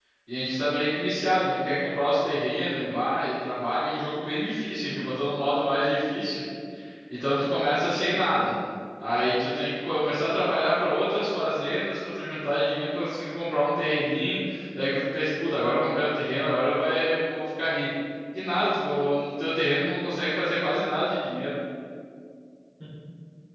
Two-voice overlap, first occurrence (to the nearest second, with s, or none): none